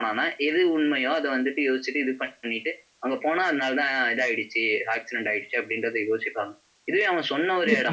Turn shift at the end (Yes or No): No